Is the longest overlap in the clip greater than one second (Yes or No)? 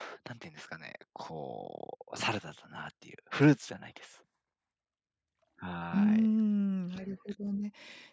No